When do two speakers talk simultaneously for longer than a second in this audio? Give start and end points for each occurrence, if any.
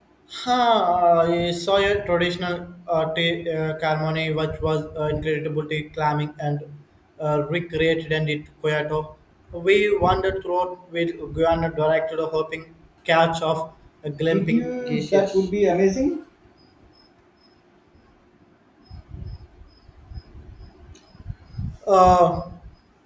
14.3-15.5

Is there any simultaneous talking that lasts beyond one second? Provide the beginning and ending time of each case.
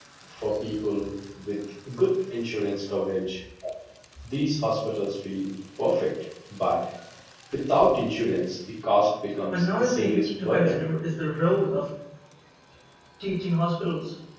9.5-10.8

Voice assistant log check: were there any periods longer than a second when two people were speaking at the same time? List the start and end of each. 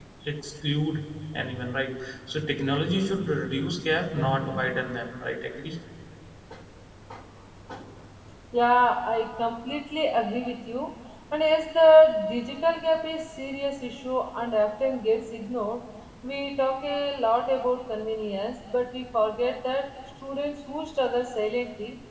none

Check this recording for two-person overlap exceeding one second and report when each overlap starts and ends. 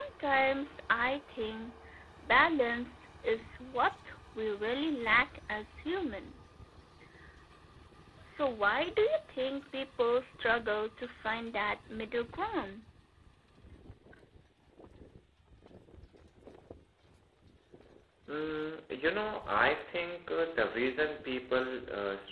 none

